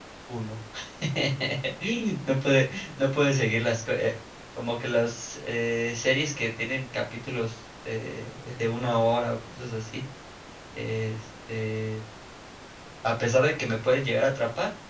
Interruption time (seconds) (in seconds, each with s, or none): none